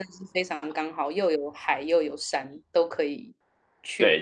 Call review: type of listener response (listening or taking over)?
taking over